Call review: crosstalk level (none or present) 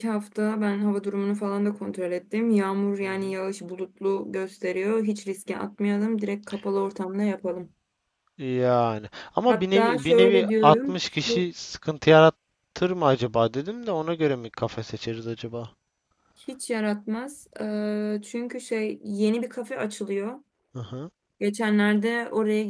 present